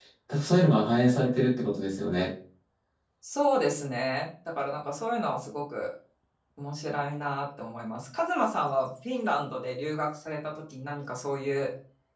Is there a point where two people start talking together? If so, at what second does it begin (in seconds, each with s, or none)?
none